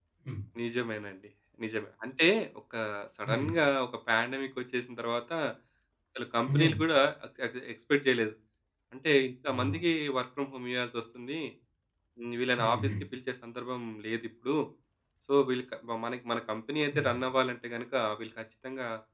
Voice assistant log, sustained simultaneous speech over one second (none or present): none